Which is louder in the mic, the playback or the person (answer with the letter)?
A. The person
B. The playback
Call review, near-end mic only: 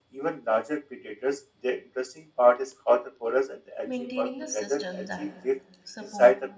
B